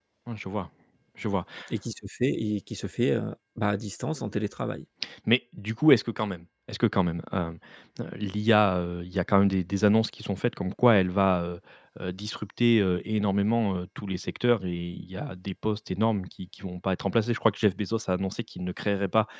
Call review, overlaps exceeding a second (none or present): none